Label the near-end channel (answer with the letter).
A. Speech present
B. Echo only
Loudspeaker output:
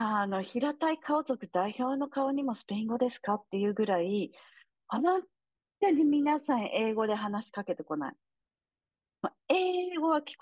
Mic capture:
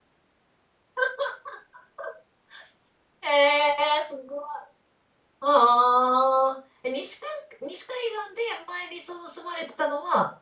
A